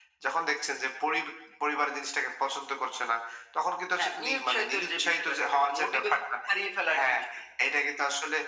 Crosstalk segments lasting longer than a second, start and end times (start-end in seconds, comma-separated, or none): 4.0-6.1